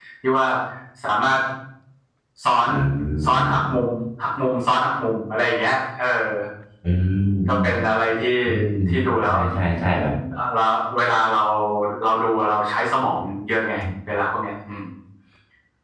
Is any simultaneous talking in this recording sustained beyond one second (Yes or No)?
No